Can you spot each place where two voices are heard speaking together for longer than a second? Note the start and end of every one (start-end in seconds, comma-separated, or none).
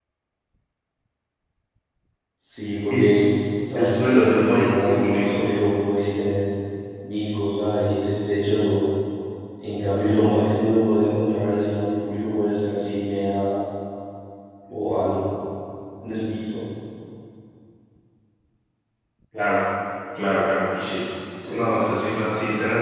3.8-5.5